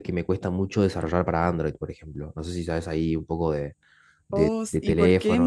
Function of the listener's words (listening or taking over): taking over